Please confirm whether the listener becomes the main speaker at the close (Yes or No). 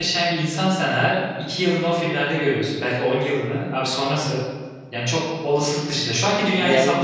Yes